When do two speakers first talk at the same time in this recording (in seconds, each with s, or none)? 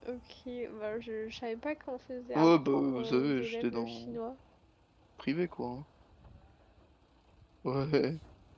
2.4 s